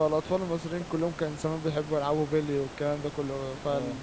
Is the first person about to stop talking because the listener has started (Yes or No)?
No